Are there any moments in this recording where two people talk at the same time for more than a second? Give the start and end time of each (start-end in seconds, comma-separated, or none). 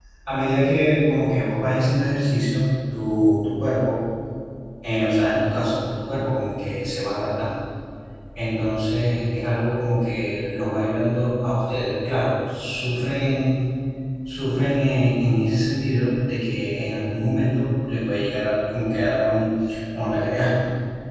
none